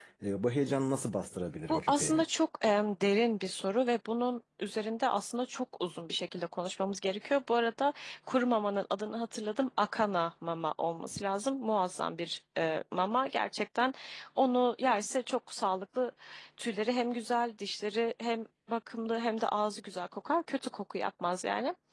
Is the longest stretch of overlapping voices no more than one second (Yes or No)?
Yes